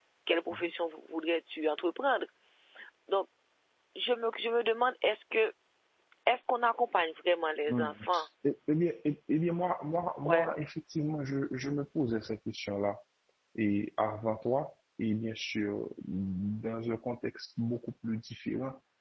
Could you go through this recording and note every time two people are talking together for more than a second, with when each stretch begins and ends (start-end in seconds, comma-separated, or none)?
none